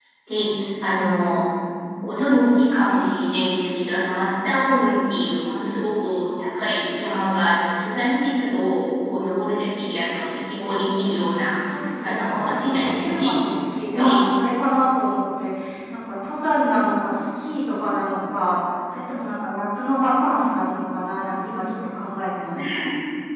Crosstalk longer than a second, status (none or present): present